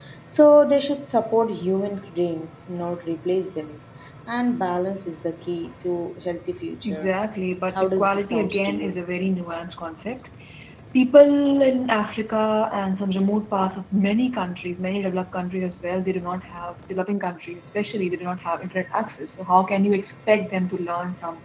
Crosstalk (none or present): present